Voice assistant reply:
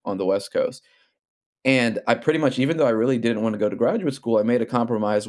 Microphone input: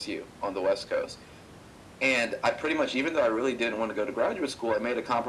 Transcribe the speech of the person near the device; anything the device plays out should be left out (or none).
none